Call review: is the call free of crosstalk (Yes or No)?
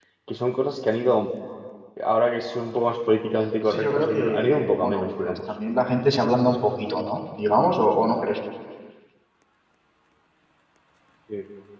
No